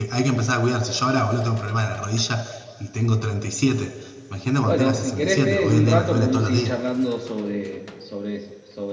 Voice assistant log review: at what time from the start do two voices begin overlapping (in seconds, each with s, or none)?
4.6 s